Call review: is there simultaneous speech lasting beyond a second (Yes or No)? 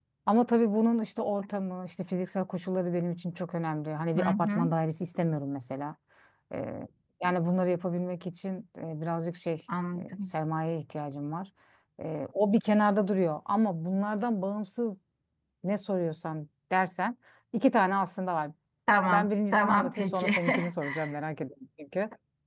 Yes